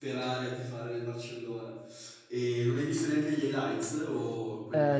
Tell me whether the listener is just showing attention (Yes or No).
No